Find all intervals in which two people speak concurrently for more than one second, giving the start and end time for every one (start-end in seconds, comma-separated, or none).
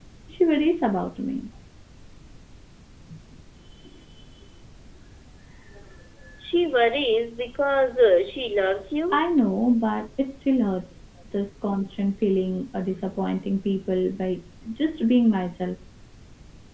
none